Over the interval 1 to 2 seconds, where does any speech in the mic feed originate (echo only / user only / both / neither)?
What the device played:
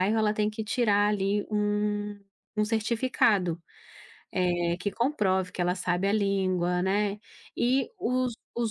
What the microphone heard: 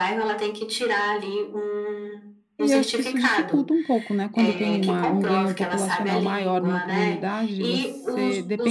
echo only